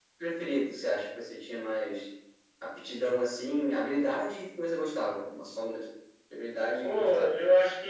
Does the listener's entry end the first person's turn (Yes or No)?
Yes